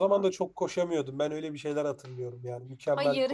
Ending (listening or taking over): taking over